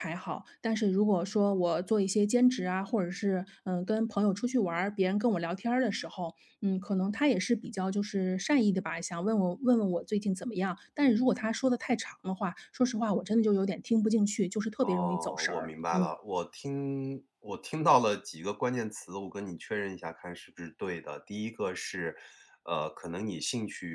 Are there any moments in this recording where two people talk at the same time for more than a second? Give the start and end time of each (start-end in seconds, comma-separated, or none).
14.8-16.1